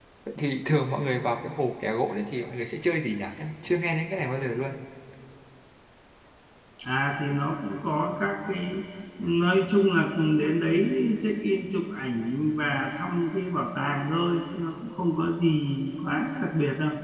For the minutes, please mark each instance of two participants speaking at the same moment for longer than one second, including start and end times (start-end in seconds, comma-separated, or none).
none